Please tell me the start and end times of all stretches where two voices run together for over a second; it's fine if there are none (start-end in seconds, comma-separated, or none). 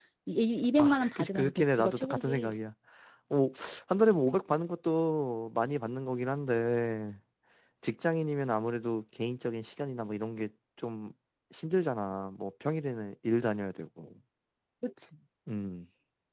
0.8-2.5